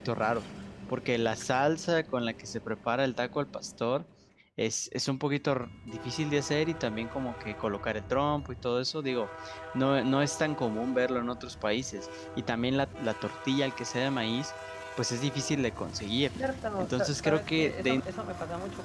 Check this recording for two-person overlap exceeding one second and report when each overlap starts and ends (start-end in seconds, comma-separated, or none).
16.8-18.0